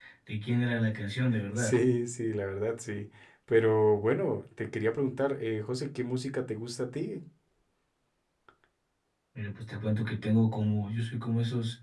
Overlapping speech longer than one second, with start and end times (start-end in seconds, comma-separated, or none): none